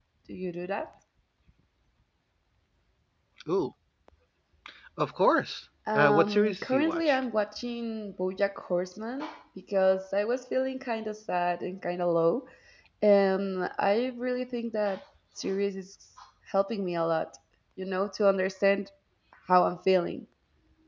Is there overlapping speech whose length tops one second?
Yes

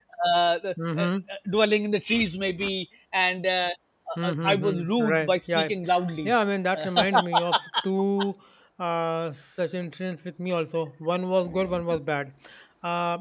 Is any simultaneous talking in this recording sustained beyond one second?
Yes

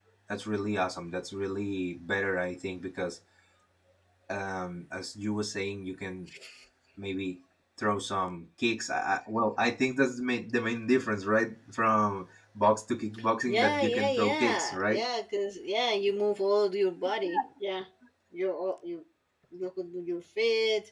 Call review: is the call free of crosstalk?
No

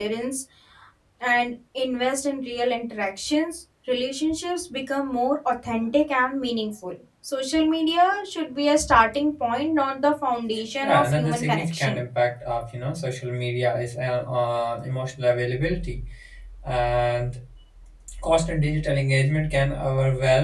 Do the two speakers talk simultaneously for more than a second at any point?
Yes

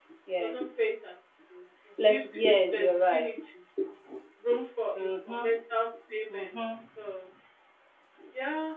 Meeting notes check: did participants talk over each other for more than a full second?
Yes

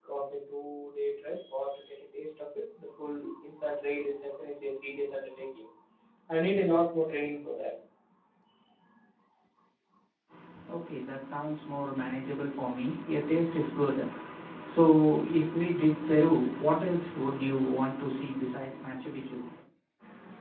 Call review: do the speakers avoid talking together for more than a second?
Yes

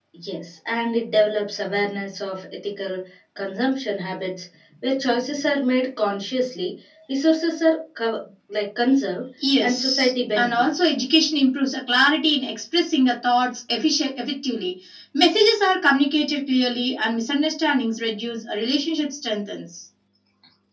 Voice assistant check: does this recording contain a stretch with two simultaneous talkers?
Yes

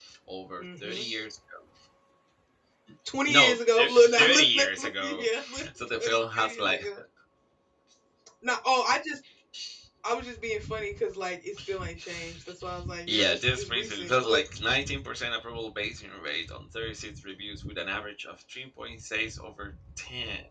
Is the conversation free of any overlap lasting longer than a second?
No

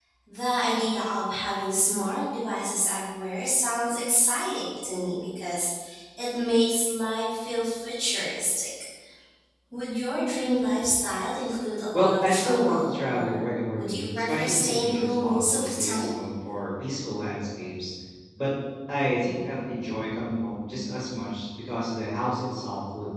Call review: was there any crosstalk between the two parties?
Yes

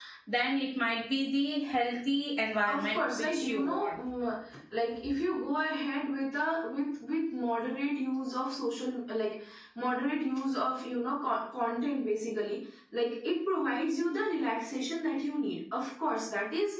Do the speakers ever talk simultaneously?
Yes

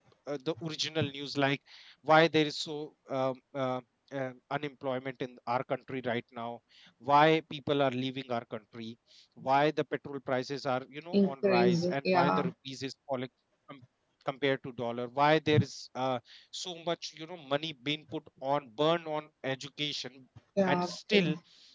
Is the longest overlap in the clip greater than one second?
Yes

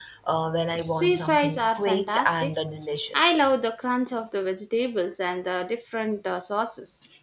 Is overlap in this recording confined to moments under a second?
No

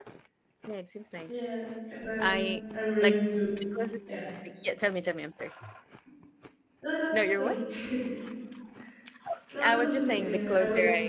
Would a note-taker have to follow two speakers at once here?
Yes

